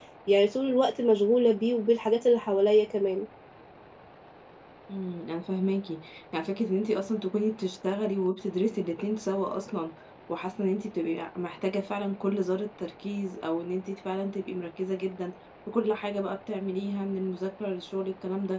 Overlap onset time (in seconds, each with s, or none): none